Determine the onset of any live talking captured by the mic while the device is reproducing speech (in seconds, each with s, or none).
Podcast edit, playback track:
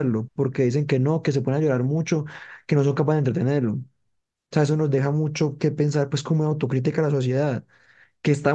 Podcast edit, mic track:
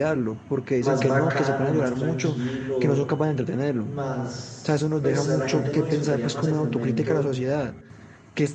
0.8 s